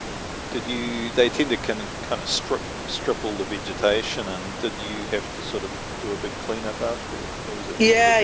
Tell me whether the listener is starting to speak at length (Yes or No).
Yes